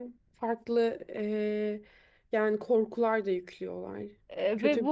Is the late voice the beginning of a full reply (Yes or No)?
Yes